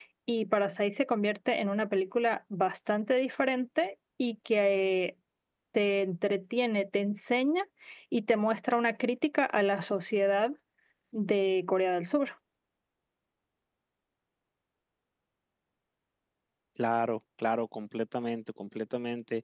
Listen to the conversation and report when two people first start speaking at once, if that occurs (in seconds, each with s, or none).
none